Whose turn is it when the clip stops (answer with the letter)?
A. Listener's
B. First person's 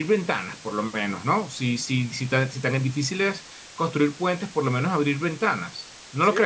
A